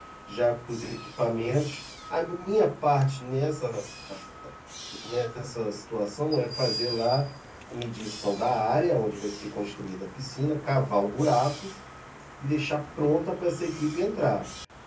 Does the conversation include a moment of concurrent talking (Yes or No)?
No